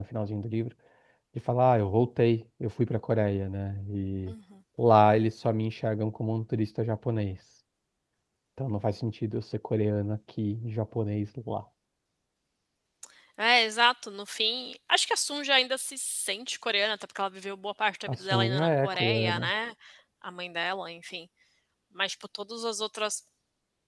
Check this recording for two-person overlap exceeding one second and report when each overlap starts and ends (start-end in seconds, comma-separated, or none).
18.1-19.5